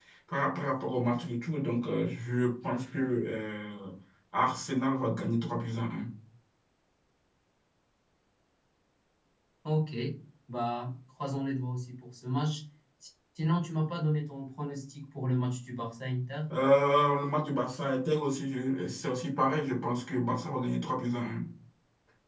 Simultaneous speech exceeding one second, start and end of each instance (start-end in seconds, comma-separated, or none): none